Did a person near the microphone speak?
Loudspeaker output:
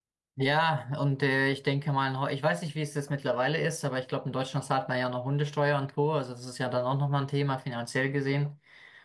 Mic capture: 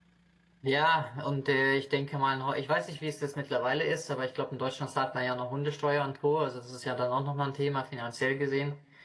No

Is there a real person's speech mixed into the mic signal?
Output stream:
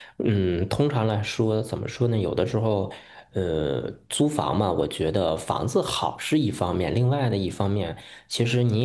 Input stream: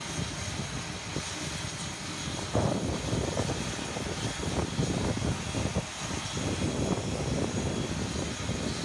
No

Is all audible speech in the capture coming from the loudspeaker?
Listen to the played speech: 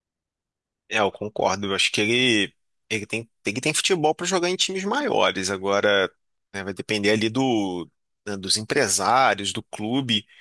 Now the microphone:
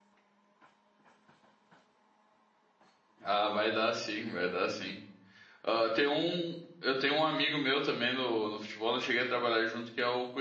No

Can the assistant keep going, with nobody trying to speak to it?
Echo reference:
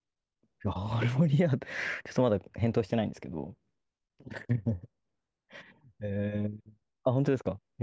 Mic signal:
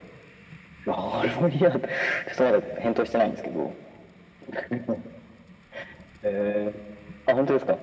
Yes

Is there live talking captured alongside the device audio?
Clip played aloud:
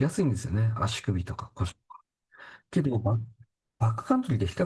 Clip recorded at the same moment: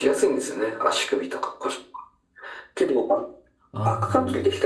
Yes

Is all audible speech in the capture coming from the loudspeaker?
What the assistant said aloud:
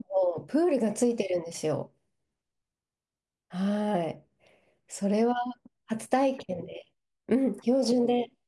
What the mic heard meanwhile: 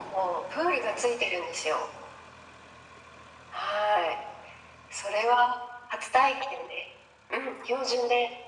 Yes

